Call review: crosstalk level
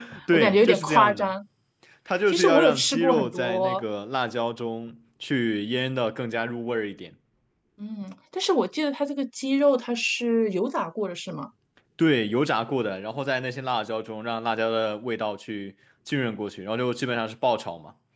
present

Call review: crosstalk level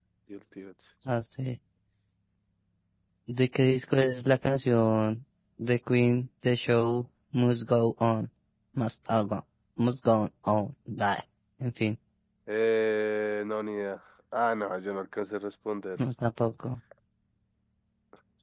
none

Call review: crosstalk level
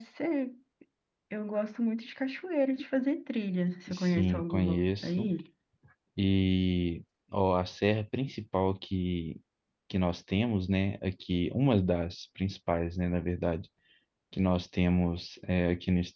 present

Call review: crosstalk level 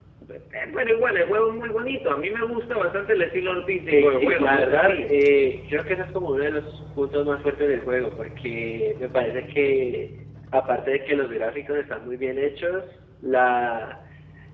present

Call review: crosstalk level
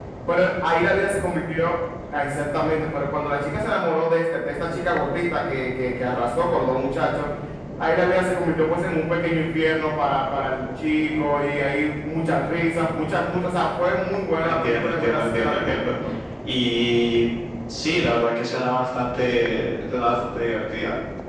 present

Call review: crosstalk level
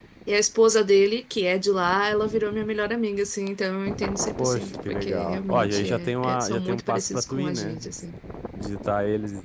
present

